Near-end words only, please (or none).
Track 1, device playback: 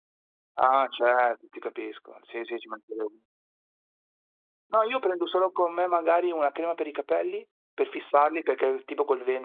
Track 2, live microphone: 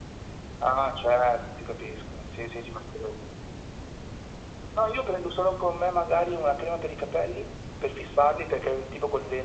none